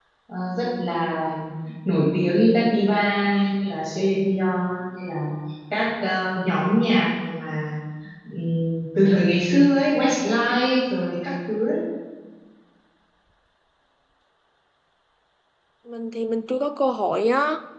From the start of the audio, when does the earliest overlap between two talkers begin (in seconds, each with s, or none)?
none